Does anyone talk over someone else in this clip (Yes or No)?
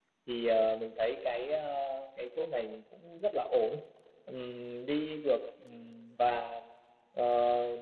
No